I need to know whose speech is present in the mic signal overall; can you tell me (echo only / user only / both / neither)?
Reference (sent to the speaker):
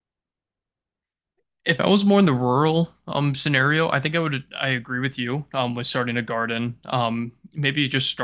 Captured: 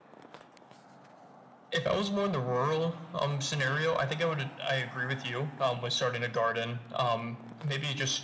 echo only